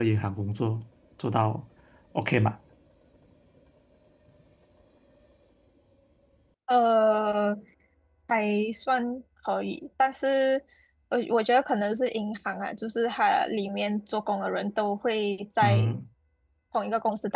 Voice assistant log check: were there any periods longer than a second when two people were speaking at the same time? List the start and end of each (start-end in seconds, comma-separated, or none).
none